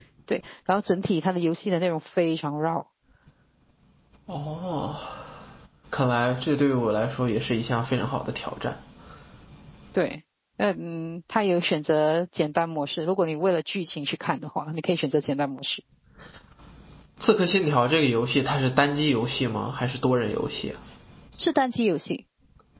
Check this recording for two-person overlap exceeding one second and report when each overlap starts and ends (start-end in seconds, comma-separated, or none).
none